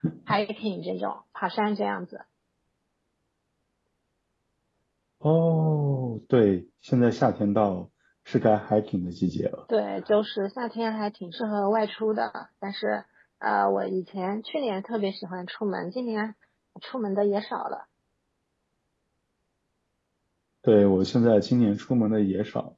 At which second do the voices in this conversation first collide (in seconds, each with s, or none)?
none